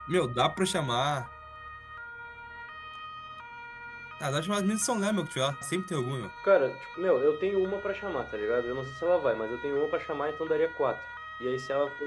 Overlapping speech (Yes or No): No